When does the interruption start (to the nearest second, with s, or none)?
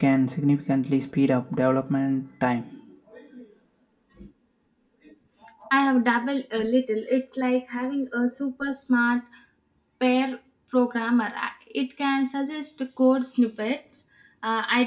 none